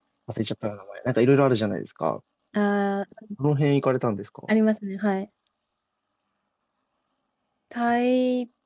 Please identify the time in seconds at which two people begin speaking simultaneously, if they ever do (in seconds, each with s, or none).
none